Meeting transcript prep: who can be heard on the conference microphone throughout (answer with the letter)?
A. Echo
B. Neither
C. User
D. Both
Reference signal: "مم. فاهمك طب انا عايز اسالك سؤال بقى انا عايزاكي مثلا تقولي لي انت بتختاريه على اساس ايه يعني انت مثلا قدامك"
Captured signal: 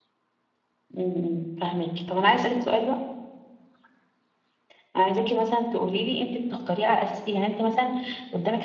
A